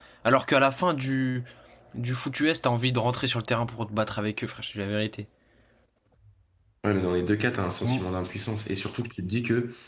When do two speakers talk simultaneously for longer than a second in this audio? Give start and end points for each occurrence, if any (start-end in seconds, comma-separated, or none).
none